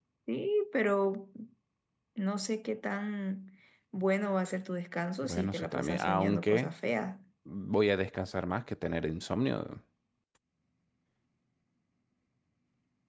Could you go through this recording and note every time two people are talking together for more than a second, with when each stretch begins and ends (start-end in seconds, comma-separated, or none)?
5.2-6.7